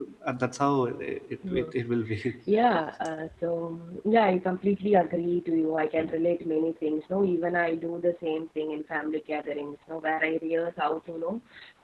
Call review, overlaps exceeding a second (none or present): none